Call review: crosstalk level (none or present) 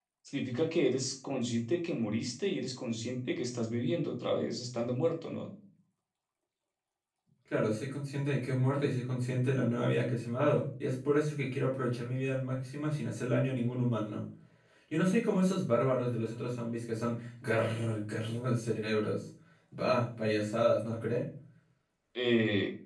none